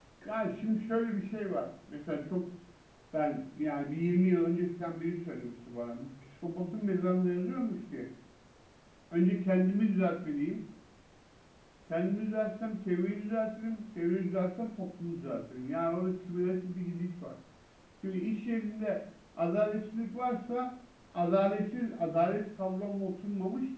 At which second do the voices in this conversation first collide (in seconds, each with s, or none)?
none